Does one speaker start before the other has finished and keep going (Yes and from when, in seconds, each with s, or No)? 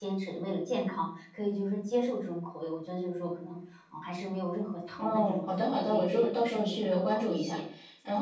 Yes, from 5.0 s